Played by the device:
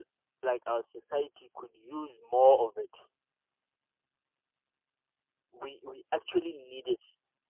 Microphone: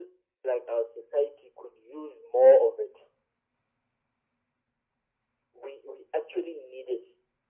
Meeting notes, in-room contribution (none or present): none